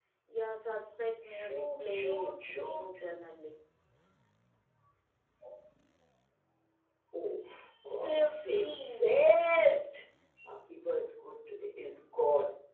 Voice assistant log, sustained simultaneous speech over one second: present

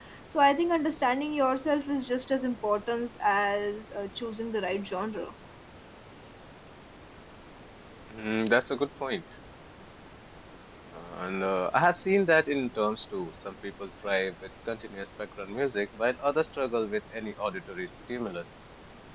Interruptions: none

